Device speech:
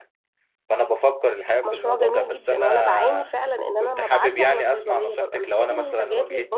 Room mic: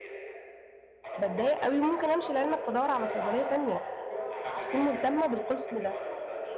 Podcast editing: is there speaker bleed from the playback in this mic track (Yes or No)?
Yes